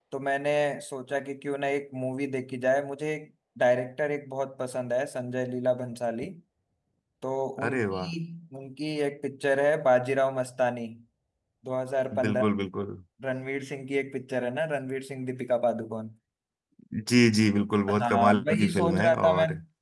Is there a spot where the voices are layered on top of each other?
Yes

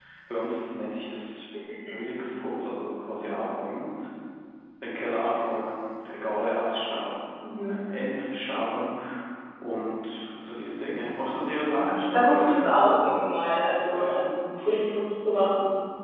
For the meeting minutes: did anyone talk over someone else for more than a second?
Yes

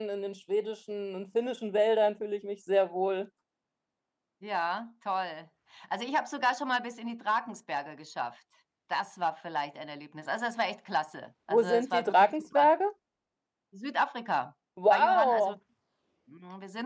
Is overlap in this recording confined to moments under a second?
No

